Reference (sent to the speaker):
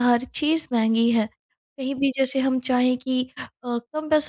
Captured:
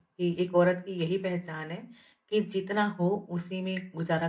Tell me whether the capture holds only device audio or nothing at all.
No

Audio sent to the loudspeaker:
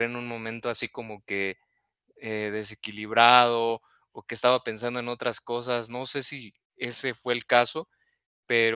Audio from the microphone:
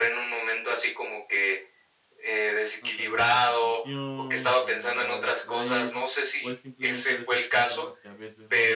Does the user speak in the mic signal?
Yes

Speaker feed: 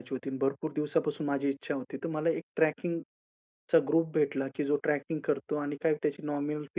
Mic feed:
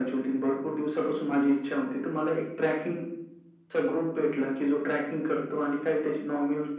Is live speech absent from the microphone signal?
Yes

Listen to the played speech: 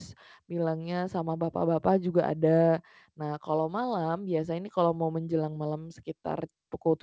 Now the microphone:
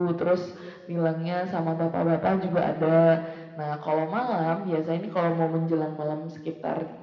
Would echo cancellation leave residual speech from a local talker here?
No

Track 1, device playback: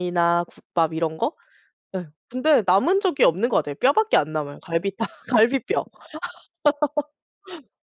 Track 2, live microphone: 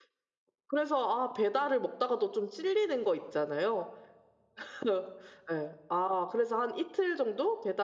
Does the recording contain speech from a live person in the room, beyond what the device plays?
Yes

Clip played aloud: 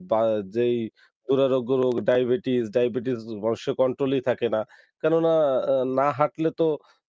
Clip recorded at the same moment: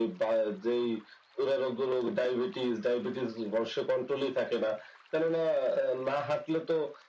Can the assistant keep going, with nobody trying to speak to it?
Yes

